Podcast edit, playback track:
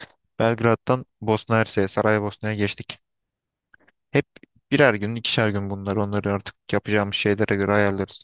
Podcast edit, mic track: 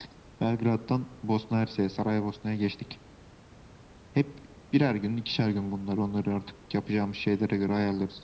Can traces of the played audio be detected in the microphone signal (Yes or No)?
Yes